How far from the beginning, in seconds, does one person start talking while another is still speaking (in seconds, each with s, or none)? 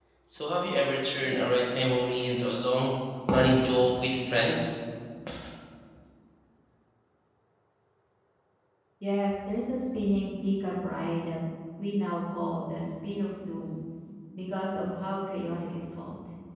none